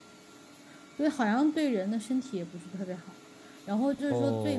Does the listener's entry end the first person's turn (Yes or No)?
No